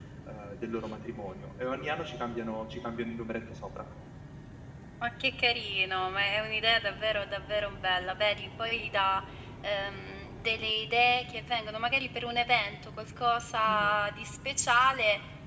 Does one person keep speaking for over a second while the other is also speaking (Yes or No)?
No